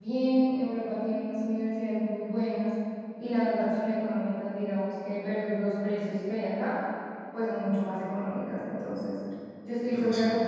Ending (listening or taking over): listening